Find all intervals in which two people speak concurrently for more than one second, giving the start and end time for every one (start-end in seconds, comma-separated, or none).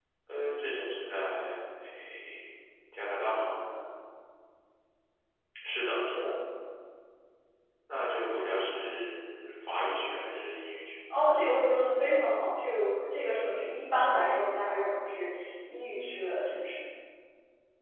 none